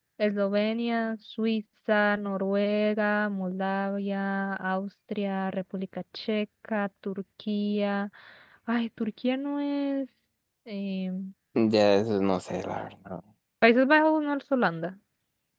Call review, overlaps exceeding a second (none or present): none